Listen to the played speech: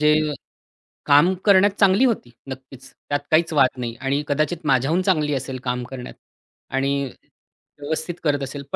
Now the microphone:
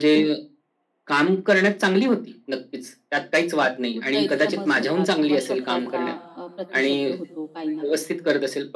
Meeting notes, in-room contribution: present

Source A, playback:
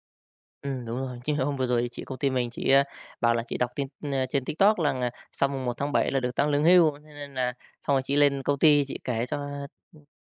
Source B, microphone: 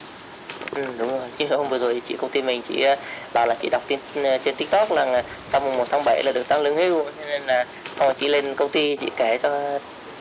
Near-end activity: none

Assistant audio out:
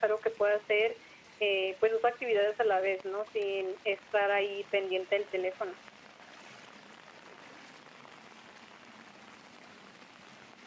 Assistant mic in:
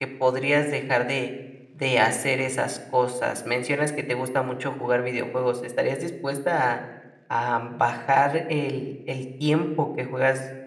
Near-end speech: present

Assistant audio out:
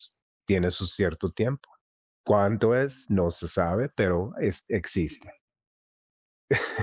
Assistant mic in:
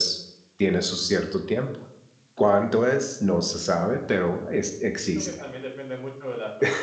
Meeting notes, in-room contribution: present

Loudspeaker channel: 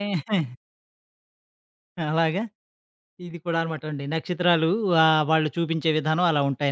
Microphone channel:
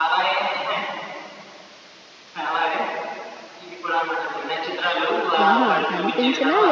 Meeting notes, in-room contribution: present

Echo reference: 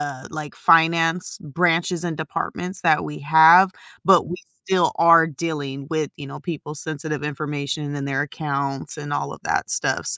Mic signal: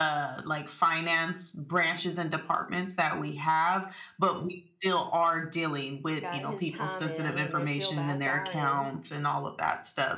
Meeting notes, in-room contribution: present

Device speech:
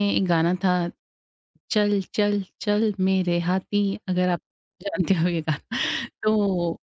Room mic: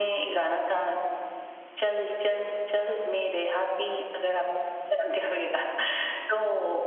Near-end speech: none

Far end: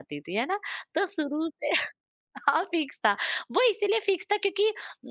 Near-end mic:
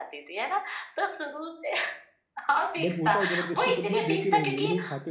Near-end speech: present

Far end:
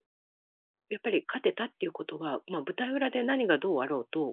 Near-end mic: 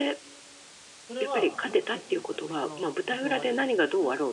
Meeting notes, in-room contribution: present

